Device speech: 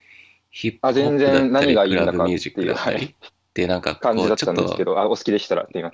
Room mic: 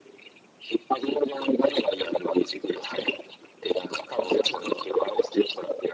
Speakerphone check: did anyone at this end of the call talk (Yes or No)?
No